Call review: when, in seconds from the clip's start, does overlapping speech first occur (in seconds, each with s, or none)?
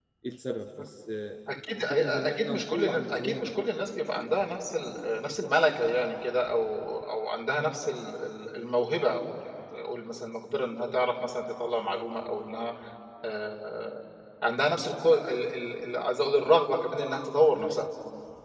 1.9 s